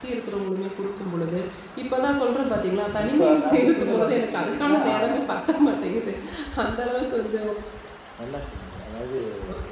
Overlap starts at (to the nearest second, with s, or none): 3 s